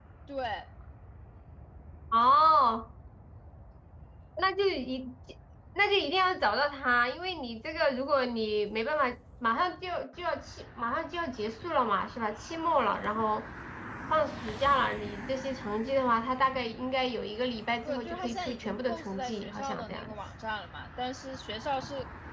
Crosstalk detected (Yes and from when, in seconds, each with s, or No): Yes, from 17.8 s